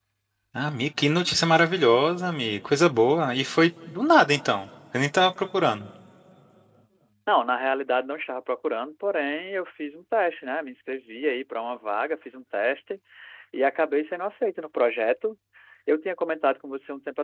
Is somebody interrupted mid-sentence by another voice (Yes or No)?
No